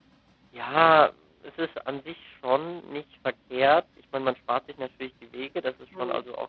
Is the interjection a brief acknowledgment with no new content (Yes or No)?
Yes